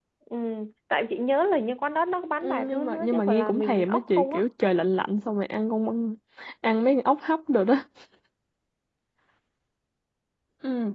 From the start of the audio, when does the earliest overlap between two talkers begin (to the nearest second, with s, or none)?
2 s